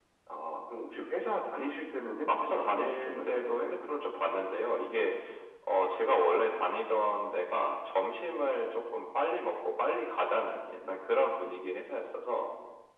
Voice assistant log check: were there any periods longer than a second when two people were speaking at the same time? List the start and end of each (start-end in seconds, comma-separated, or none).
2.3-3.9